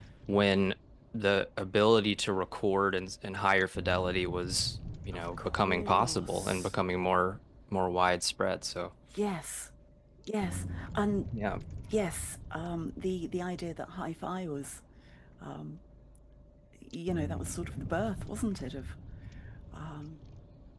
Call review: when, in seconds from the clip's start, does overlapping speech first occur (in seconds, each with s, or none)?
5.1 s